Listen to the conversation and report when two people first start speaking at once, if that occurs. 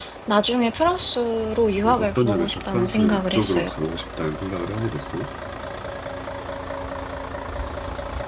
2 s

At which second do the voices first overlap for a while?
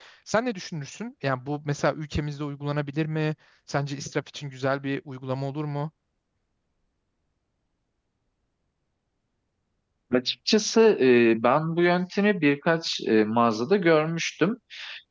none

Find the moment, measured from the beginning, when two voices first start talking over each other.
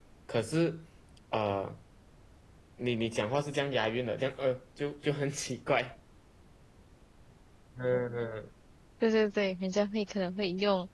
none

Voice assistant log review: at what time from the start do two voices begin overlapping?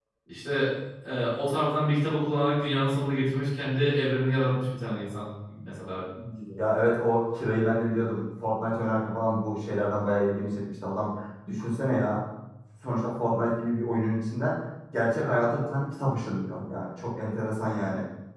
none

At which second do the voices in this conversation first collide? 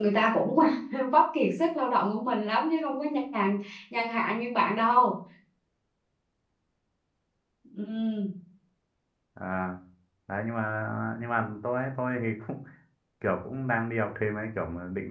none

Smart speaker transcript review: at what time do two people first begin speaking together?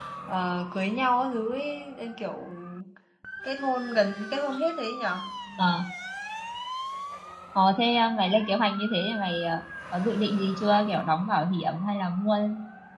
none

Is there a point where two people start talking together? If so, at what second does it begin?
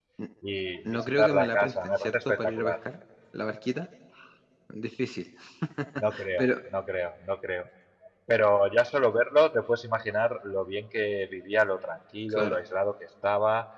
1 s

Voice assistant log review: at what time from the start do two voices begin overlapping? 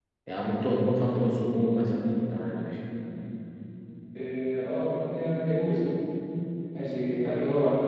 none

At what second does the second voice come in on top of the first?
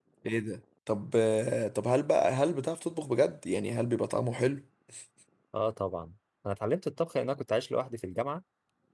none

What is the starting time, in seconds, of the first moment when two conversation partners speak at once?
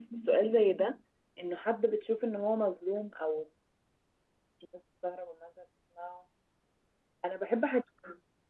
none

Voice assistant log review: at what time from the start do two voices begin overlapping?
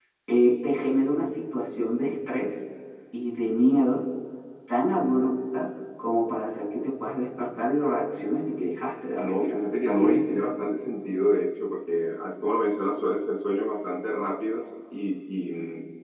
9 s

